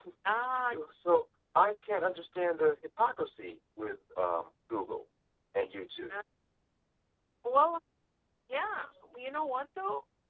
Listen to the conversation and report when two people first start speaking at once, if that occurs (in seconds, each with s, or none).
none